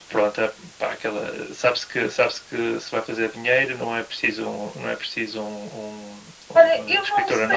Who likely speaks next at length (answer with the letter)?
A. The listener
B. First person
A